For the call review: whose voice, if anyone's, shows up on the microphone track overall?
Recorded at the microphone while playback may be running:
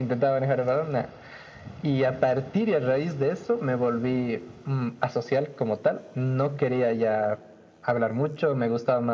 echo only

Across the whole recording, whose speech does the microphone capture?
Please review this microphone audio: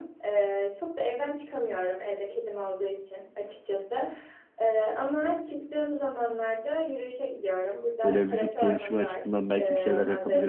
both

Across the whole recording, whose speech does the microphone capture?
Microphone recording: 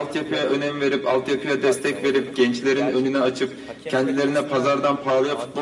both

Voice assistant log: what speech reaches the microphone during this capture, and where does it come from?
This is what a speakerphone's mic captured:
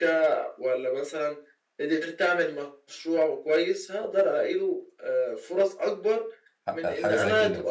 both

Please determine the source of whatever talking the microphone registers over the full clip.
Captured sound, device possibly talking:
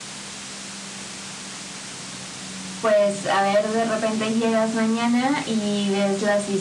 echo only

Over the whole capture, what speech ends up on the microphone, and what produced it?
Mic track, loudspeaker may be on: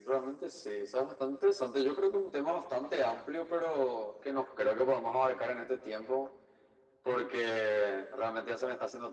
echo only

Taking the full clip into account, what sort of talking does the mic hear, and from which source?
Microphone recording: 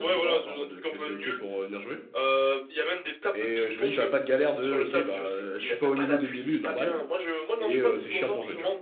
both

